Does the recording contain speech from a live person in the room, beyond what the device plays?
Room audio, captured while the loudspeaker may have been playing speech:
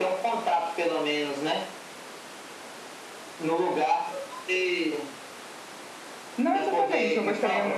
Yes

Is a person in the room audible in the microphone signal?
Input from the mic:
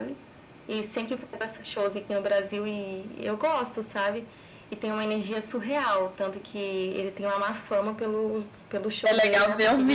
Yes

